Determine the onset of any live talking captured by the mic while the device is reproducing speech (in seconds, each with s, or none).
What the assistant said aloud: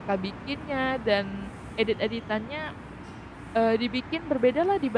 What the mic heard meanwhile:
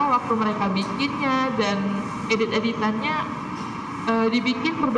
none